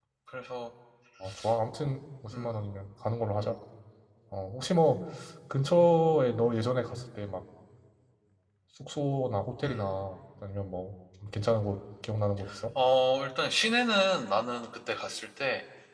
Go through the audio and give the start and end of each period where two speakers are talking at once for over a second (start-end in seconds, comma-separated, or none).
none